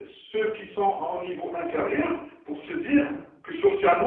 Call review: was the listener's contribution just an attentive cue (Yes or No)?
Yes